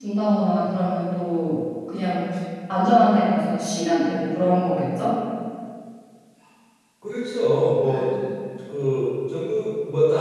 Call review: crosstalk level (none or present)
none